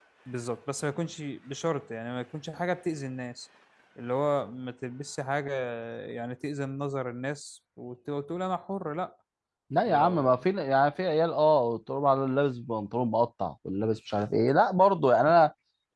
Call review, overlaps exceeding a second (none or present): none